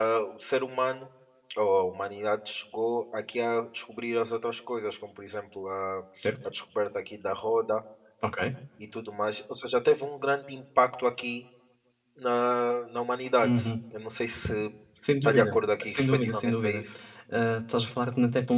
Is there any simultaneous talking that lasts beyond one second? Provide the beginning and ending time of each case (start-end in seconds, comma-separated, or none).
15.2-16.8